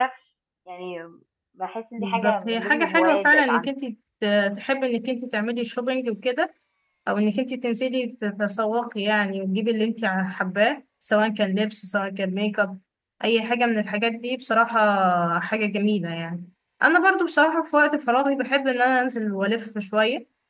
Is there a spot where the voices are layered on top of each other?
Yes, from 2.0 s

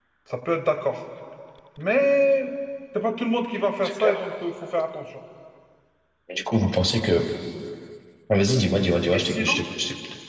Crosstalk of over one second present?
No

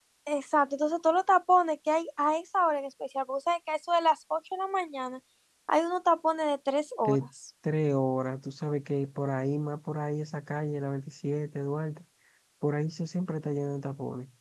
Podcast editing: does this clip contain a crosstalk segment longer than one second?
No

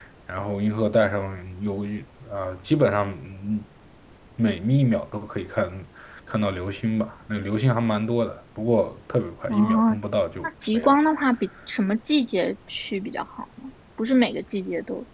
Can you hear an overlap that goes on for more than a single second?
No

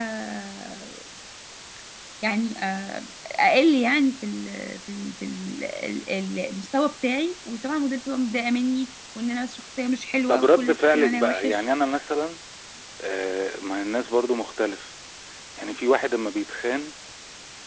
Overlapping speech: Yes, from 10.3 s

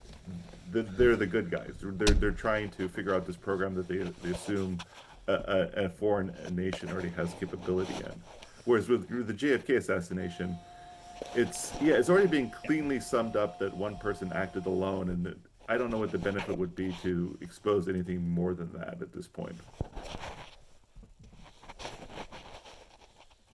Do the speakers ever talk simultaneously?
No

